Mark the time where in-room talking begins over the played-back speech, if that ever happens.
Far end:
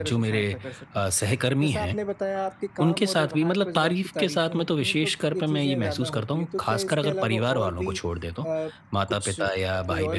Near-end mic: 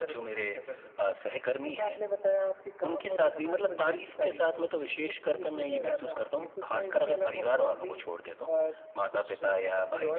none

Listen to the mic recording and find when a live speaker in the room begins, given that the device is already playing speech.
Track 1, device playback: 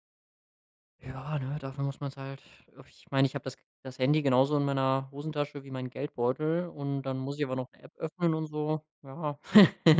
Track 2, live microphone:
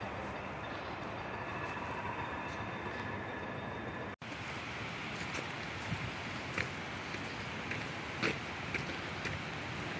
none

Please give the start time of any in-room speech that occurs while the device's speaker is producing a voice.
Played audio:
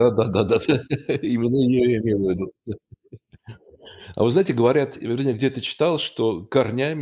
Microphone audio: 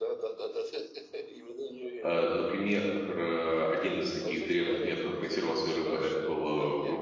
2.0 s

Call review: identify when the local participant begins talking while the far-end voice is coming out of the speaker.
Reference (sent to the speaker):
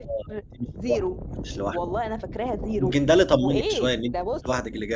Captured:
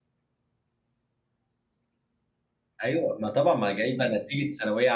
2.8 s

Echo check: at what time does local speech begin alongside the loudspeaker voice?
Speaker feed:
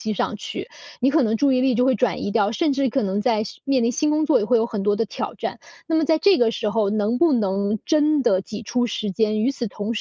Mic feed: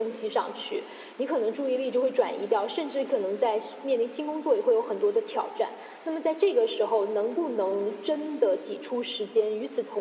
none

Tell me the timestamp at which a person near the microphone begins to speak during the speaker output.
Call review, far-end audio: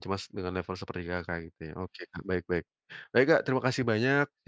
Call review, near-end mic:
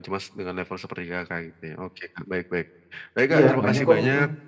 3.3 s

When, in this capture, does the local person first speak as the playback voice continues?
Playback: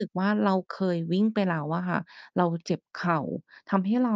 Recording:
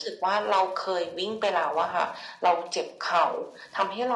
none

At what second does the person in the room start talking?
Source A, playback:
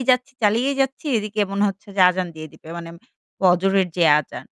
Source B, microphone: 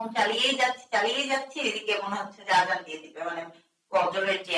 none

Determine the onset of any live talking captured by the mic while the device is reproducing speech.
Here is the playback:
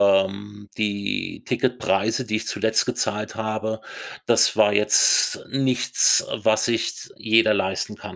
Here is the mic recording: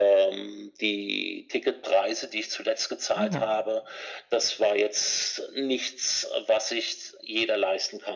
3.2 s

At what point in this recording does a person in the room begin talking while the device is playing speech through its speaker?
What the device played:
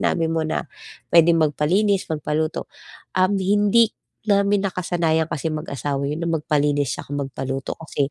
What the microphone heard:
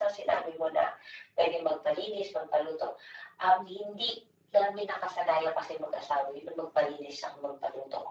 none

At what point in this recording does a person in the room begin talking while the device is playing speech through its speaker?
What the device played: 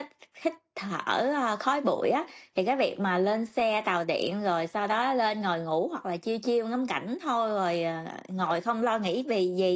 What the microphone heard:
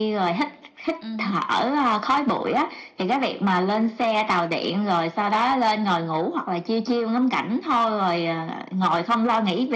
1.0 s

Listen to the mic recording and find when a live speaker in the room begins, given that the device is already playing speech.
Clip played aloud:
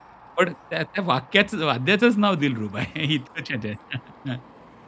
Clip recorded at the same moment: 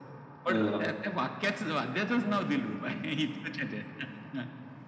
0.5 s

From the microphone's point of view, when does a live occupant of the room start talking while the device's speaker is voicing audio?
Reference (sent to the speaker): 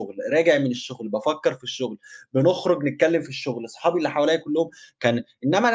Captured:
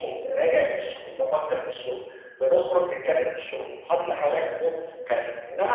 none

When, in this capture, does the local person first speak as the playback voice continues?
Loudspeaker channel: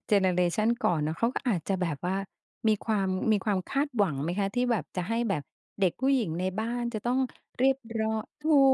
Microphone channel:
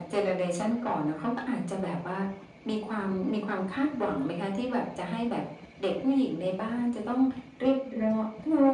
none

